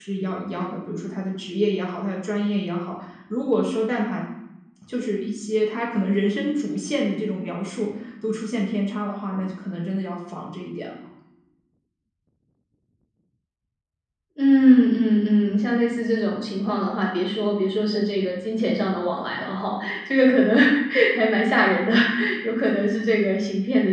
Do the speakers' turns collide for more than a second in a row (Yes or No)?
No